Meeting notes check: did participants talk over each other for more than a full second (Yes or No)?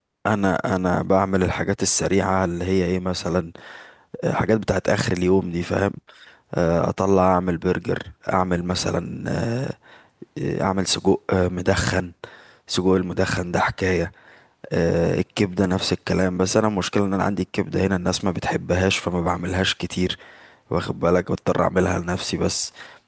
No